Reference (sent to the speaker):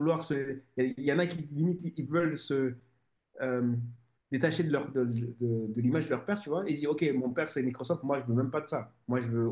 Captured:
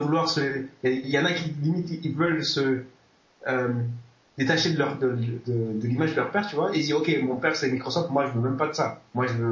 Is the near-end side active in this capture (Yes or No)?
No